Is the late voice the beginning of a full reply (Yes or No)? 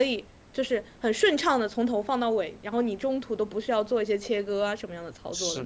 Yes